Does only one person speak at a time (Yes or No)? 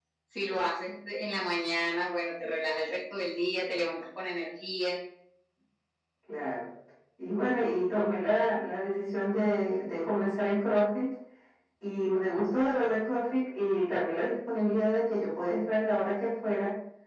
Yes